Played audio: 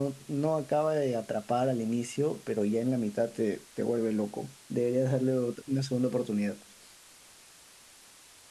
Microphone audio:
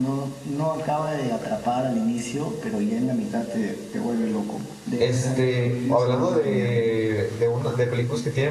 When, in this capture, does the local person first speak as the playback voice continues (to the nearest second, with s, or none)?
5 s